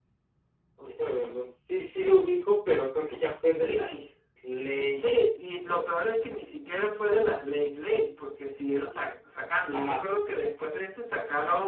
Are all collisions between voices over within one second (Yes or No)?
Yes